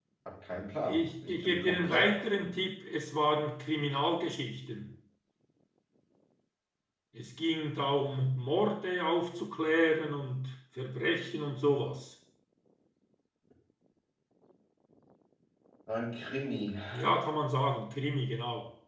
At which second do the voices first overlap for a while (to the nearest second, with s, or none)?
1 s